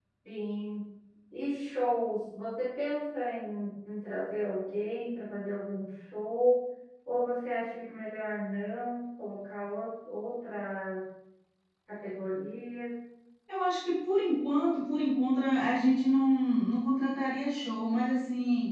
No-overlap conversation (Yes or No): Yes